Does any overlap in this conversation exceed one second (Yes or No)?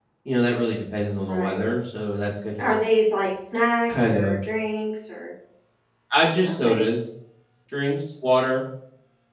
No